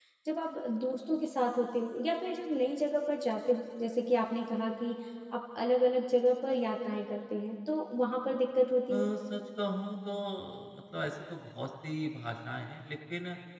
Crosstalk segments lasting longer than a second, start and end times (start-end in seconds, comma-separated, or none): none